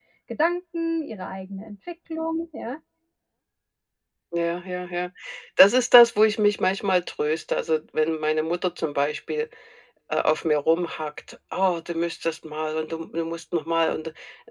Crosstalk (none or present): none